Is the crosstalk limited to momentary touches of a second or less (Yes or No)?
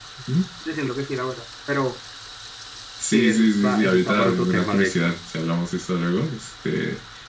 No